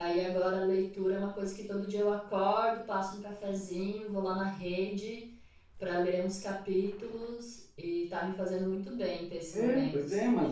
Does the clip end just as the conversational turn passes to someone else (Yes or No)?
Yes